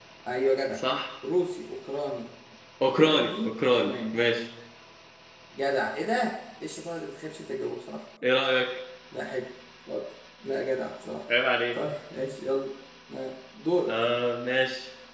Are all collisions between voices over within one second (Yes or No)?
No